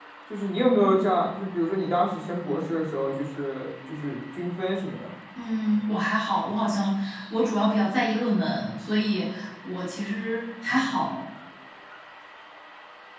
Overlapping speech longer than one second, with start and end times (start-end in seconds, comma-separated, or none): none